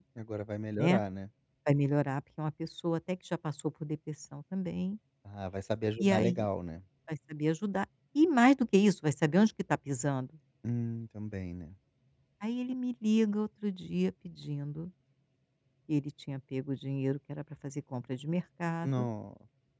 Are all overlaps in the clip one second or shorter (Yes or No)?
Yes